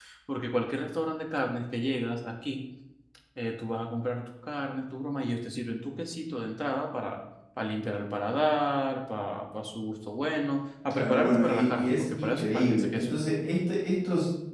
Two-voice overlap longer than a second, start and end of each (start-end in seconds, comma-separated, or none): 10.9-13.1